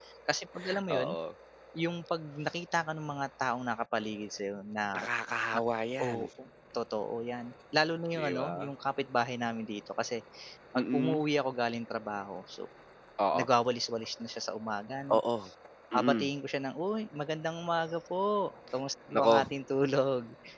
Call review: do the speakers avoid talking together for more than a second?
Yes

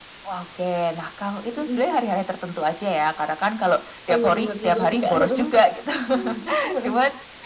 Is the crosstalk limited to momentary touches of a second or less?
No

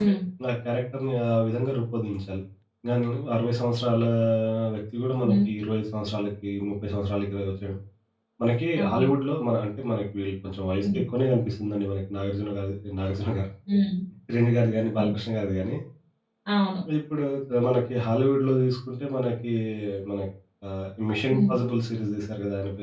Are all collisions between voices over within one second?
Yes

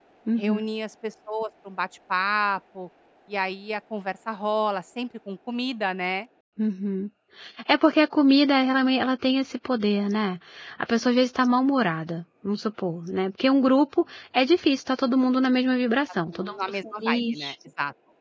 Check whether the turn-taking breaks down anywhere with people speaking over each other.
Yes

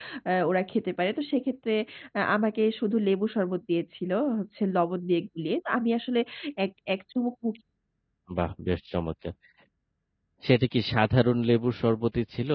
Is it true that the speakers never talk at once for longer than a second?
Yes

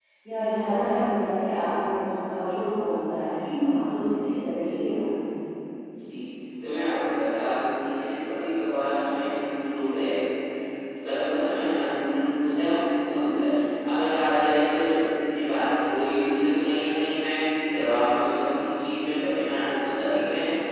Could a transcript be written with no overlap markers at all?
Yes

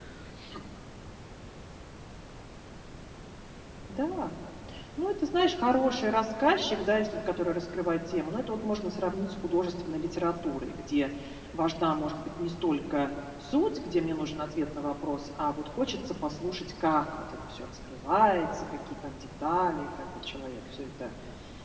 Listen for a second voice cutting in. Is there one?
No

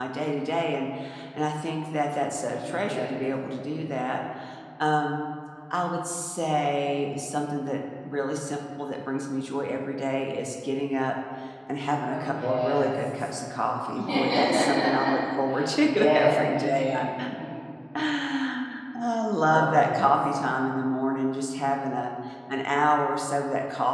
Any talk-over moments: Yes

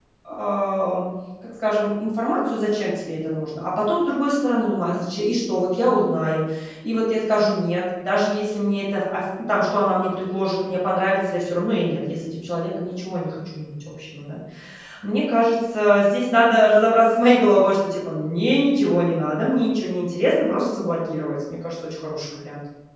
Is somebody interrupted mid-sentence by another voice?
No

